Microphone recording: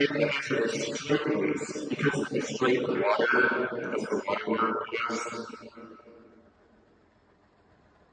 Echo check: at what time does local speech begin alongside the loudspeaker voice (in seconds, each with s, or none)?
none